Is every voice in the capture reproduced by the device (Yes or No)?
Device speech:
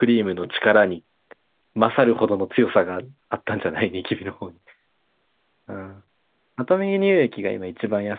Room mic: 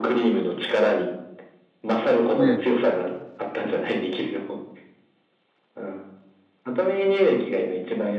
No